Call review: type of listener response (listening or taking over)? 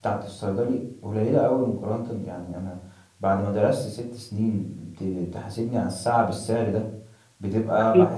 listening